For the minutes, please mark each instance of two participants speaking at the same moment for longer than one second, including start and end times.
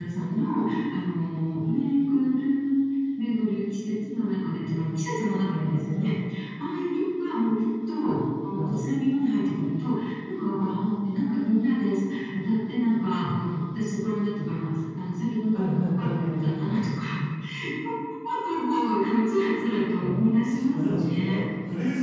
15.5-16.8, 20.0-21.4

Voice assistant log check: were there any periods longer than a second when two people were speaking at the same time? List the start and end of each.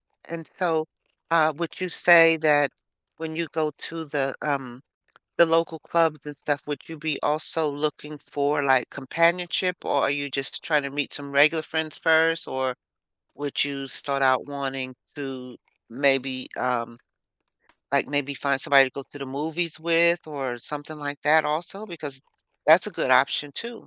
none

